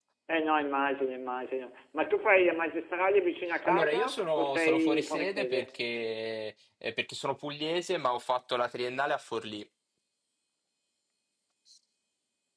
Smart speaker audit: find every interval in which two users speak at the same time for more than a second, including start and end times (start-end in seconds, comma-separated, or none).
3.6-5.7